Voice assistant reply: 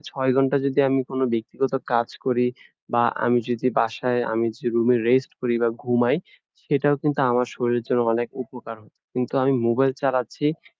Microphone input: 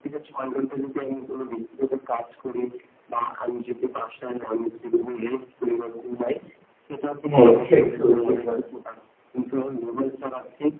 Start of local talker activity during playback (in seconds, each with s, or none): 7.3 s